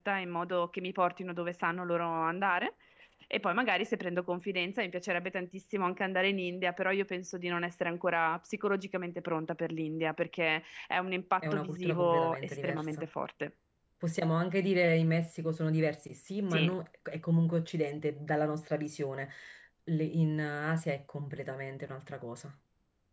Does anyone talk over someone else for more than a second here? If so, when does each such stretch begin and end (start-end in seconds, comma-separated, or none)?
11.4-12.8